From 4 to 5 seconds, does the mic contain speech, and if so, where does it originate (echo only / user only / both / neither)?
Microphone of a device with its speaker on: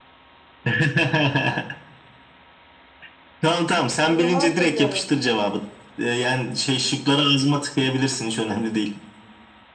both